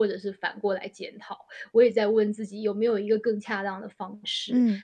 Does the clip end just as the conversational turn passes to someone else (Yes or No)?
No